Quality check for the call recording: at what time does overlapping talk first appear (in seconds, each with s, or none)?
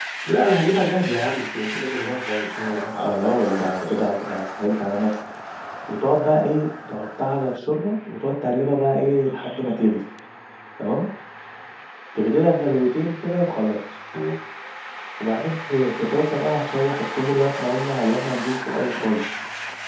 2.9 s